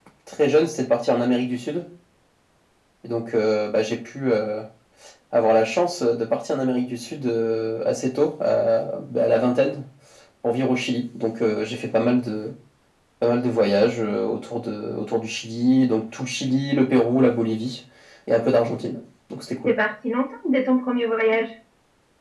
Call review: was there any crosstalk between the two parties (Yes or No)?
No